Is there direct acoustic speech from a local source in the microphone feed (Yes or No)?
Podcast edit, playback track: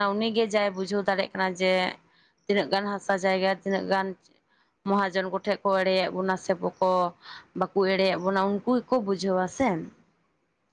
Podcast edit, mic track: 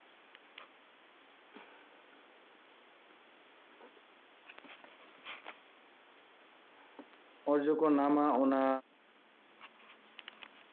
Yes